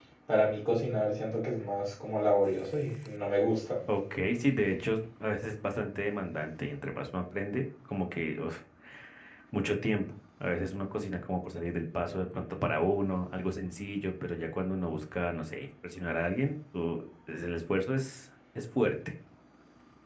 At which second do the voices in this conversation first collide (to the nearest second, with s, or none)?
none